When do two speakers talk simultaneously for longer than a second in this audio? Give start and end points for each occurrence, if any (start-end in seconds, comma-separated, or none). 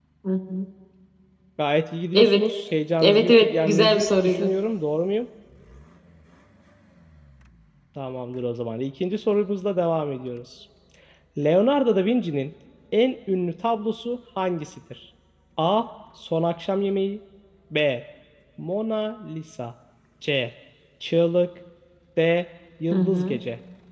3.0-4.5